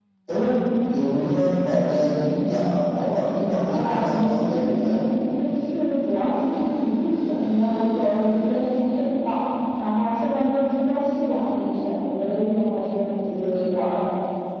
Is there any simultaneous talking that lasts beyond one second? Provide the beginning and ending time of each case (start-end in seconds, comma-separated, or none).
3.6-5.0